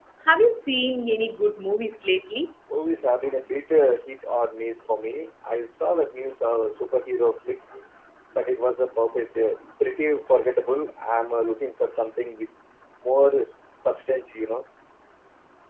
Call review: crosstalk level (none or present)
none